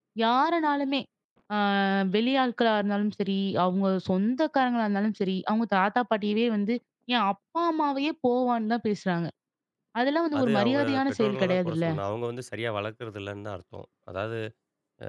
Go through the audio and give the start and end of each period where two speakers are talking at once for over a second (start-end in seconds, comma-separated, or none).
10.4-11.9